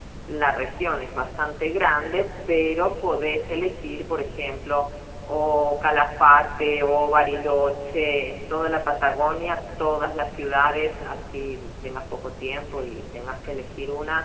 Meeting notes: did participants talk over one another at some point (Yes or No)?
No